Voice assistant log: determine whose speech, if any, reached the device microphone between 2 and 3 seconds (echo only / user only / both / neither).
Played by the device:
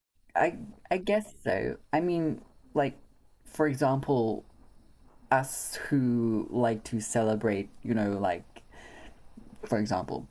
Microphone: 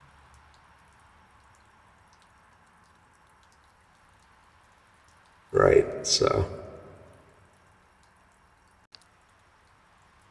neither